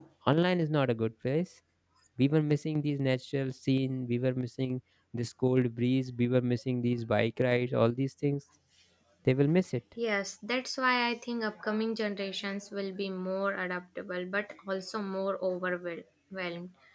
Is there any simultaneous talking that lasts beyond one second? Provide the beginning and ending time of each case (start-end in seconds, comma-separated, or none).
none